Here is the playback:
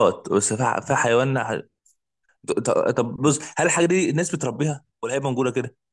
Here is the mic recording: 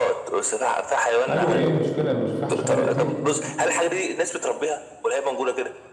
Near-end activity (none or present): present